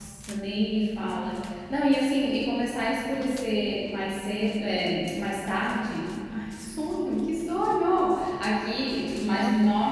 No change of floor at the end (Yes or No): Yes